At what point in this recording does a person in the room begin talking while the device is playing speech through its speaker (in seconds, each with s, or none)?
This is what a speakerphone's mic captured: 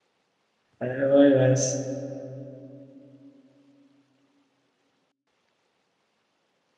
0.8 s